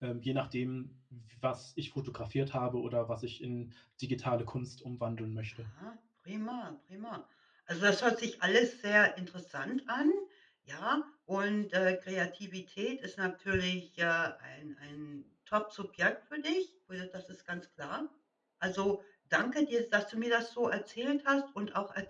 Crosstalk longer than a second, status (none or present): none